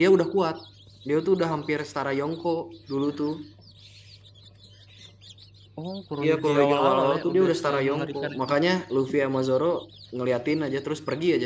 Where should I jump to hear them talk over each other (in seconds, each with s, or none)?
6.2 s